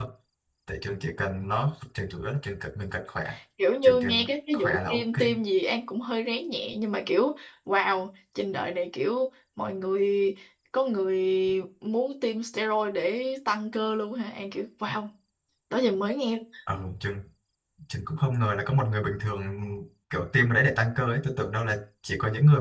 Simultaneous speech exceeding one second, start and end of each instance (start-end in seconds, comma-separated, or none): 3.8-5.2